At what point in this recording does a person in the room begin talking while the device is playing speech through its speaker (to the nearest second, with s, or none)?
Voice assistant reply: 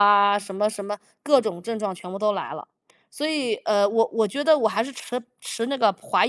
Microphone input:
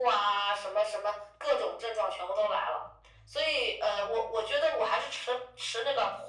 none